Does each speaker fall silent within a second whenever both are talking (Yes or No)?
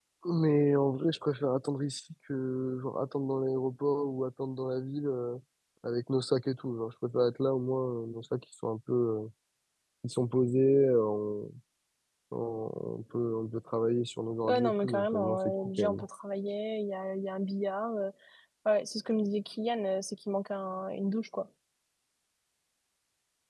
No